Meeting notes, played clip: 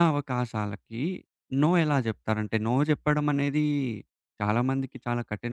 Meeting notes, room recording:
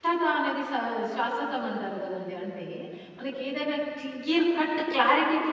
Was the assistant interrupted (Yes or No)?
Yes